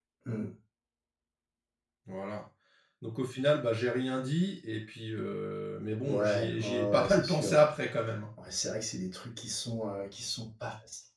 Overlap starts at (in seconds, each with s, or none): 6.1 s